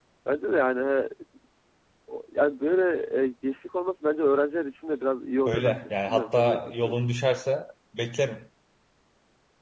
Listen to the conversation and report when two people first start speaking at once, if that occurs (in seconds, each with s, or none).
5.5 s